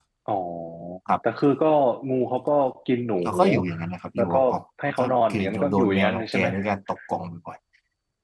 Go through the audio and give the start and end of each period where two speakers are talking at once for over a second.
4.9-6.5

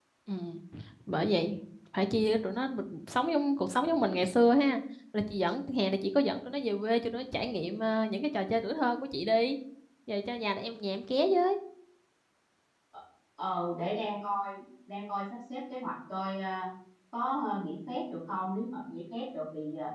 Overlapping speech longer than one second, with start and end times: none

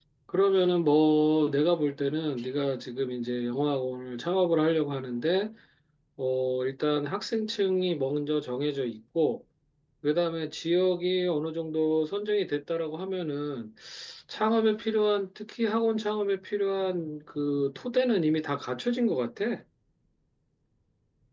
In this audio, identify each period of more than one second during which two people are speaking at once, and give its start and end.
none

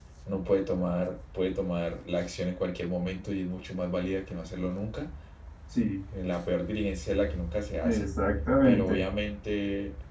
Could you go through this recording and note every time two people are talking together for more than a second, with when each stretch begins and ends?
none

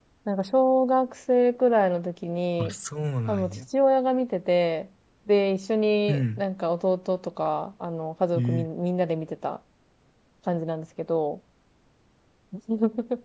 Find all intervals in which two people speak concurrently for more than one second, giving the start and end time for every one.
none

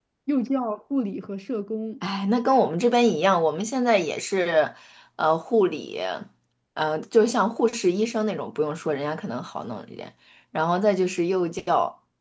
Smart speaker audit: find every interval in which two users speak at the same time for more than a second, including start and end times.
none

